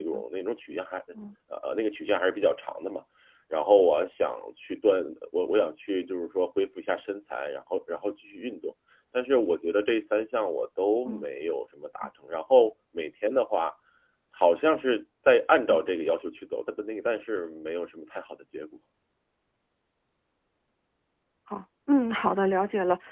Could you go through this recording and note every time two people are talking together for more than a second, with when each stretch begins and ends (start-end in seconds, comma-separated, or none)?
none